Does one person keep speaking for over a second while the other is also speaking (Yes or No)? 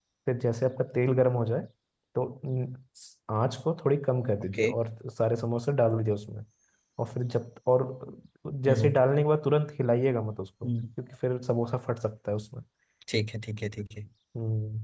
No